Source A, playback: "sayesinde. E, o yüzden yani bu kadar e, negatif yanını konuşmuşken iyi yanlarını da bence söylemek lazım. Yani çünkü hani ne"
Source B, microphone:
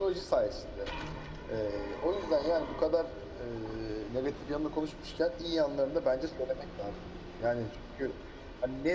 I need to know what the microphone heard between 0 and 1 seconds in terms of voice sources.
echo only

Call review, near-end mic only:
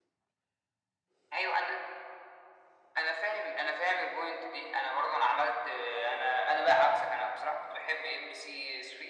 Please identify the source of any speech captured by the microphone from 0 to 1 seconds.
neither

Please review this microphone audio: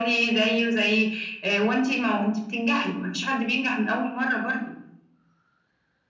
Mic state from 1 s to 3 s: echo only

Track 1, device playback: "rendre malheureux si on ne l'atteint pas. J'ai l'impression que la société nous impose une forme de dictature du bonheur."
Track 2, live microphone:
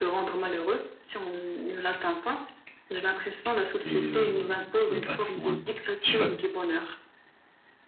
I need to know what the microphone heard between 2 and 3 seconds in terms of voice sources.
echo only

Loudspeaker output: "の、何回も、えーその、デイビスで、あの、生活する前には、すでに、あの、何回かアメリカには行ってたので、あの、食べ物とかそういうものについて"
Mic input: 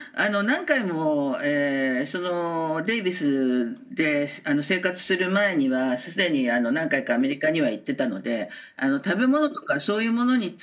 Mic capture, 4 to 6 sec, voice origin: echo only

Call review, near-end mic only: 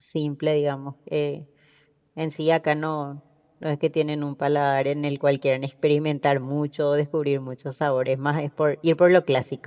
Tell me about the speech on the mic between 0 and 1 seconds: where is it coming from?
user only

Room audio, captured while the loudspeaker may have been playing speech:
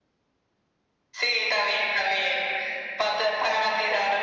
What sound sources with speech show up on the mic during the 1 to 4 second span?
echo only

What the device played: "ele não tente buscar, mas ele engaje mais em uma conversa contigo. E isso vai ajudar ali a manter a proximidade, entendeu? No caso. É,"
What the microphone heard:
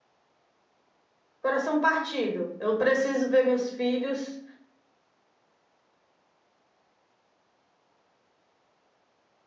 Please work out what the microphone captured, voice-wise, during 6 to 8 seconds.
neither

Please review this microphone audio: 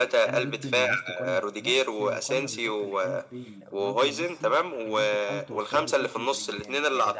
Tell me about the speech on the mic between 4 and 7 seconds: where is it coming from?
both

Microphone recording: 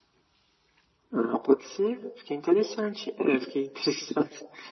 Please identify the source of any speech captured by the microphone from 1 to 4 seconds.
echo only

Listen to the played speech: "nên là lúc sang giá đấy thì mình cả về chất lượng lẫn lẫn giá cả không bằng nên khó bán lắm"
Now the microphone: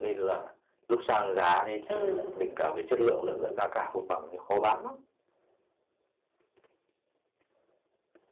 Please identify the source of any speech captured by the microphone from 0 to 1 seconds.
echo only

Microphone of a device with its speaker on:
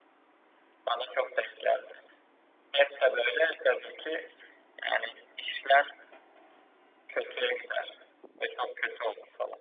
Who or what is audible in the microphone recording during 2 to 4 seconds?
echo only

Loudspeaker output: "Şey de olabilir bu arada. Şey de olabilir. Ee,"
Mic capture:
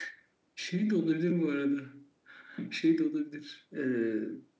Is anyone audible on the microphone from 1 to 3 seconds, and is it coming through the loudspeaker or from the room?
echo only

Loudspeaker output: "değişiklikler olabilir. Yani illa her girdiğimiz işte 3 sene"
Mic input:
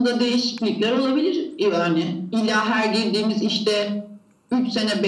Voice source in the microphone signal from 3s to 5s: echo only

